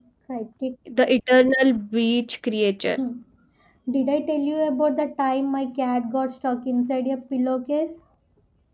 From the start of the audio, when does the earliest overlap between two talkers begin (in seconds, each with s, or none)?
none